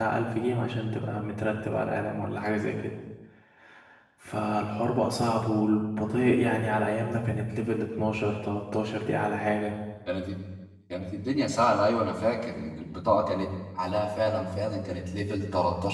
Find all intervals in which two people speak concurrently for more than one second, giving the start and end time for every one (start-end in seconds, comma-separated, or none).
none